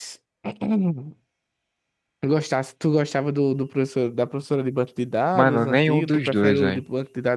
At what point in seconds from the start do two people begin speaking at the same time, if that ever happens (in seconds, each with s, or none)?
5.3 s